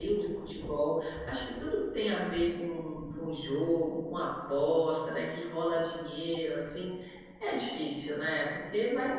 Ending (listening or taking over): listening